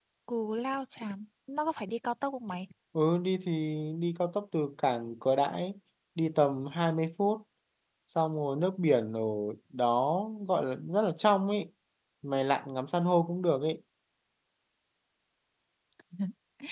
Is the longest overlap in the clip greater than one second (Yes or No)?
No